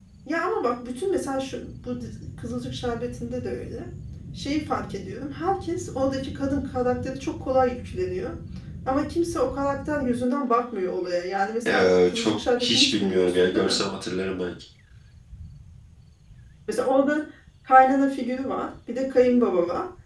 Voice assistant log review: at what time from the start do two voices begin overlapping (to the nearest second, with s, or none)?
12 s